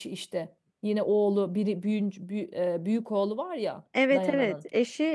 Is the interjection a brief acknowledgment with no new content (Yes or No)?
No